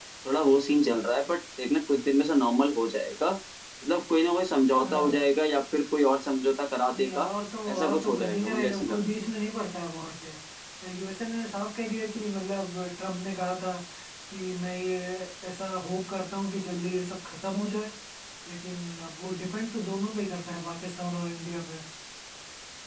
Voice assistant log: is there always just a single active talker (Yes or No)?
No